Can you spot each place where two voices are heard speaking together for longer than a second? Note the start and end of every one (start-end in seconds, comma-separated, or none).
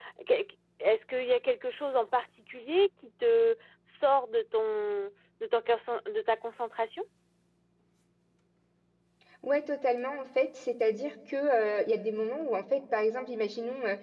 none